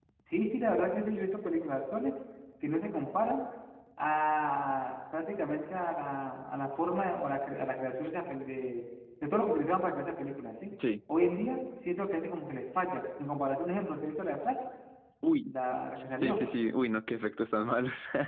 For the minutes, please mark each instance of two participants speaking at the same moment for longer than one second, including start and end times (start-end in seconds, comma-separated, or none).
none